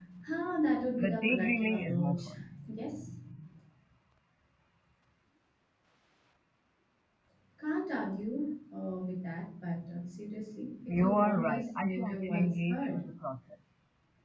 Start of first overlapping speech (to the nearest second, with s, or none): 1 s